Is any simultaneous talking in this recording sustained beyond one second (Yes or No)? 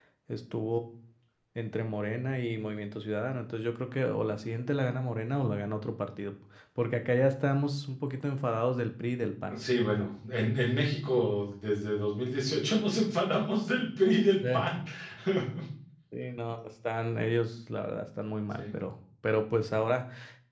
No